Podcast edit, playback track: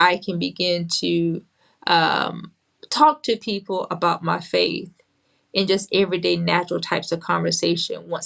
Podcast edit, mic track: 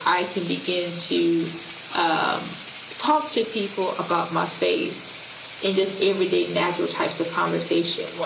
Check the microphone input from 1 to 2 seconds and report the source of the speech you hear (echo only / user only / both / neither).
echo only